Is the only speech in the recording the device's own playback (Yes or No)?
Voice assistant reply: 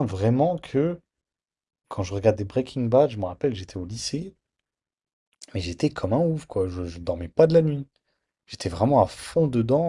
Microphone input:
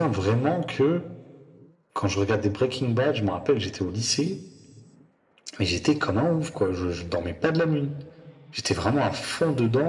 Yes